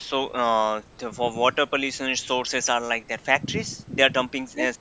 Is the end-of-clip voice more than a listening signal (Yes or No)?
No